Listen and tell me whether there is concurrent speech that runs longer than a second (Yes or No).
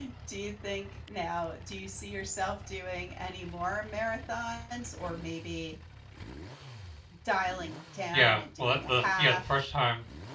Yes